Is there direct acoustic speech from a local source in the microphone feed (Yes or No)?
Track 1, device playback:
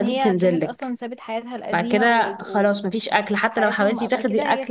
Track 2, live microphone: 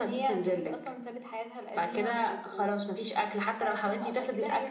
No